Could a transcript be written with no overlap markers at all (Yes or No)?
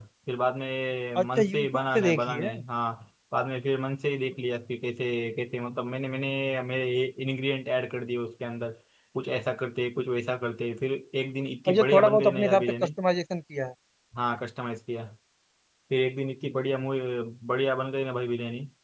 No